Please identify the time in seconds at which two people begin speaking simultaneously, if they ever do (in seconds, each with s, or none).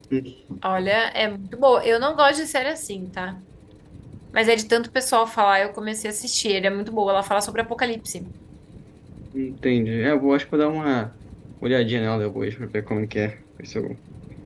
none